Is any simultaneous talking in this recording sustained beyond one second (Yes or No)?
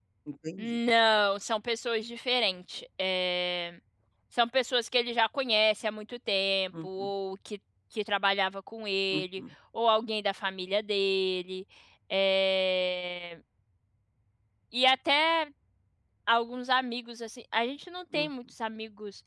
No